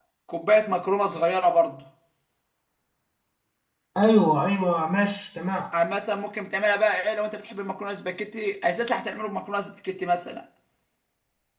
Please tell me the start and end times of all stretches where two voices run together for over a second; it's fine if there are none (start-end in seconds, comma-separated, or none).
none